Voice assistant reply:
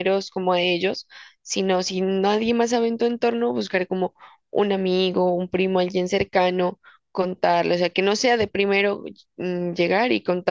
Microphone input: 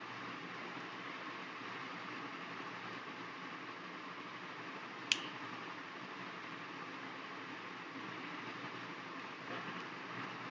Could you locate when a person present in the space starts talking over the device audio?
none

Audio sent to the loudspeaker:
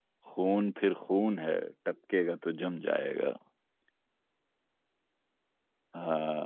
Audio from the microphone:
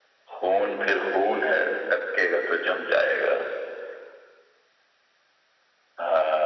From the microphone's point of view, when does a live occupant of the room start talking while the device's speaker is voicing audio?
none

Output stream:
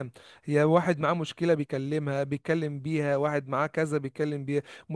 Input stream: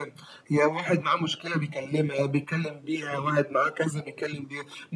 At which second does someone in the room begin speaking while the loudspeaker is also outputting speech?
none

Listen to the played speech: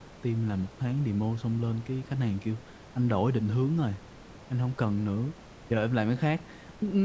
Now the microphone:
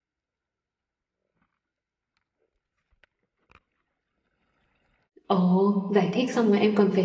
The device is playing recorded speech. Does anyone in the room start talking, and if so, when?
5.3 s

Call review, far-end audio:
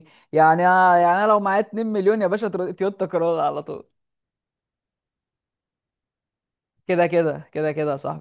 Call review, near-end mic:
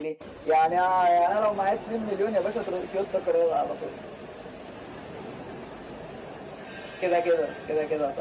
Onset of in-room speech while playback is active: none

